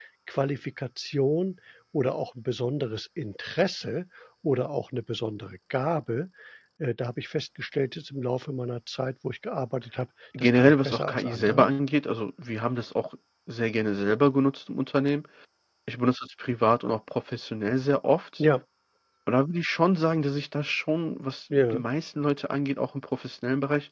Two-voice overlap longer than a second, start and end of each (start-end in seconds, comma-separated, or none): 10.4-11.7